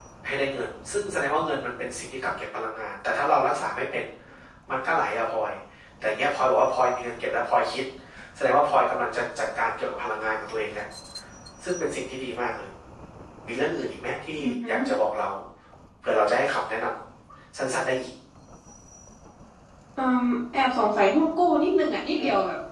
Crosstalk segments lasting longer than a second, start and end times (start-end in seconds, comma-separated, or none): none